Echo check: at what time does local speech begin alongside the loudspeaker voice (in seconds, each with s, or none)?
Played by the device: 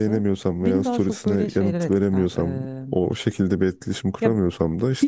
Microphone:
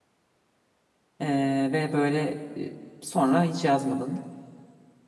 1.2 s